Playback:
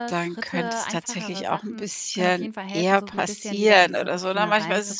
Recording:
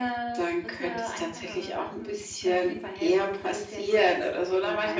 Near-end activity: none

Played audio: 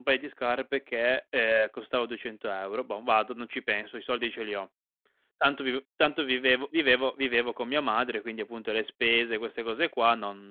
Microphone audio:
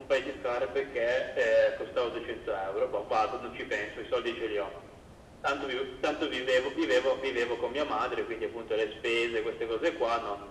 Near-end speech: none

